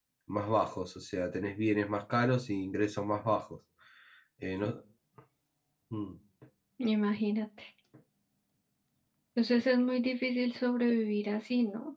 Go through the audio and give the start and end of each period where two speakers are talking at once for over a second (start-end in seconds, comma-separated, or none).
none